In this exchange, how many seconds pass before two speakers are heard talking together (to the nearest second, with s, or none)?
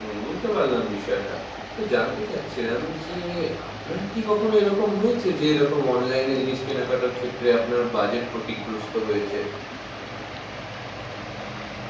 none